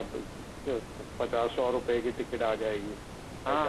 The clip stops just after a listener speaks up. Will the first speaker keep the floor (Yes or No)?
No